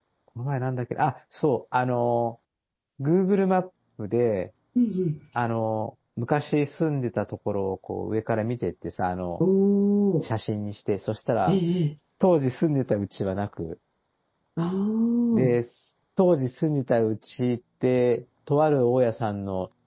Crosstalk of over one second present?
No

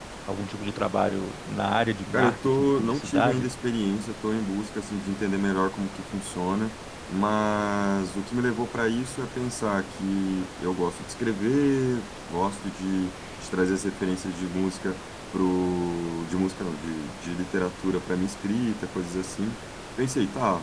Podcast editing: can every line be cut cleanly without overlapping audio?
No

